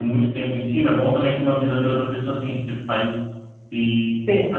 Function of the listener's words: taking over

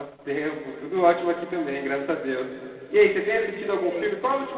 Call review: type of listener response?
listening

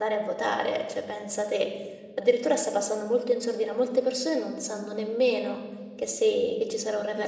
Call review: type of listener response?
taking over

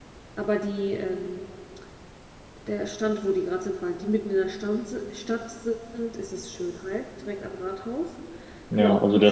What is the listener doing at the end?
taking over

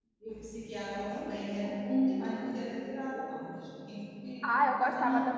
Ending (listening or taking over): taking over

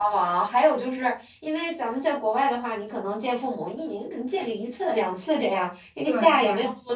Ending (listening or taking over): listening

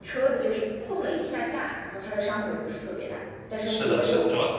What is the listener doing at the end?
taking over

